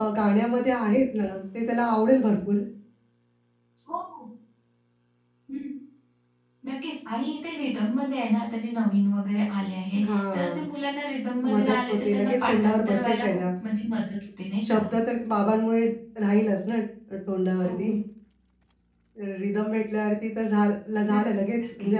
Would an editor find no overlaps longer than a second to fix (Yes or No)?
No